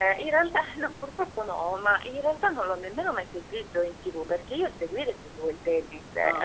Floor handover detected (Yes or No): No